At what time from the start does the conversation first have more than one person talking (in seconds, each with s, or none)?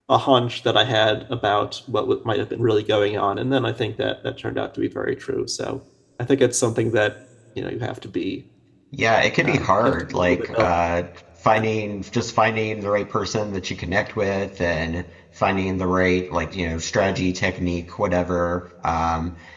9.4 s